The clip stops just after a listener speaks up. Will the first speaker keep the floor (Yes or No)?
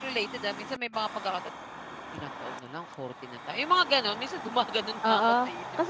No